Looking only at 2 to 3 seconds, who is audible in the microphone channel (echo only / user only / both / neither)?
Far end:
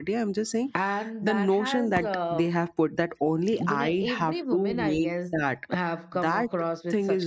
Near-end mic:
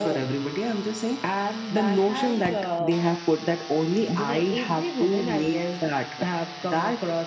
echo only